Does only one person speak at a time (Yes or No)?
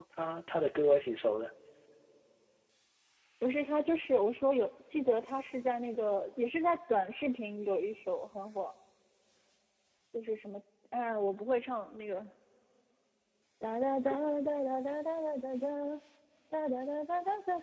Yes